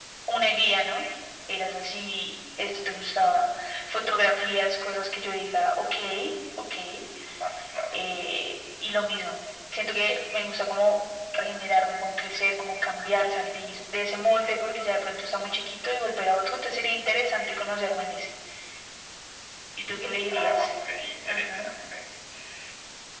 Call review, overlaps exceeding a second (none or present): none